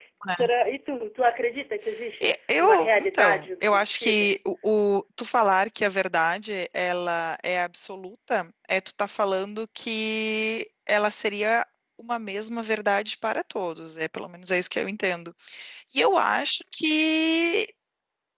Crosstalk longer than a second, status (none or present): present